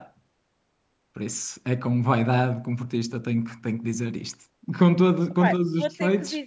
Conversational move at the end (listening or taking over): taking over